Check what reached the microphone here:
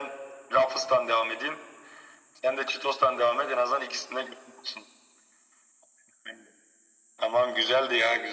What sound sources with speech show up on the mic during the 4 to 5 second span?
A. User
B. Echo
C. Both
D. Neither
B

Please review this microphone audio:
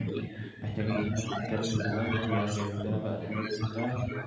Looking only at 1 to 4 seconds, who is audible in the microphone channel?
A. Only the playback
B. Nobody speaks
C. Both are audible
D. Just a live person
C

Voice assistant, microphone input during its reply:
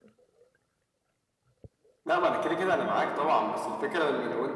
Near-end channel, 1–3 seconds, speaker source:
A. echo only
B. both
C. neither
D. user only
A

